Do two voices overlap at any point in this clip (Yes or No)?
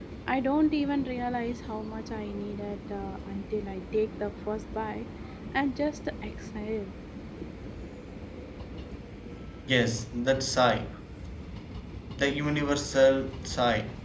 No